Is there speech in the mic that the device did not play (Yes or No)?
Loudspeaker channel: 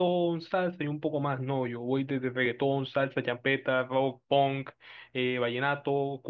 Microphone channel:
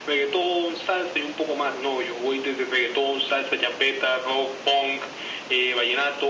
No